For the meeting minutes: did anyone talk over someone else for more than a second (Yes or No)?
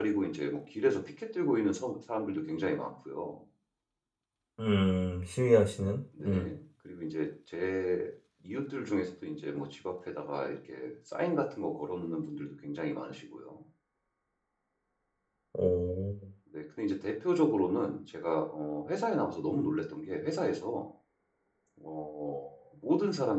No